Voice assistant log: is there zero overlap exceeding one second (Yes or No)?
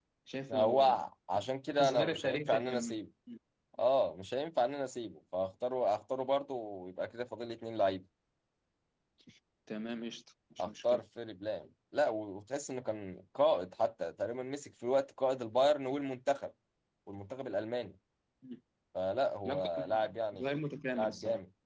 No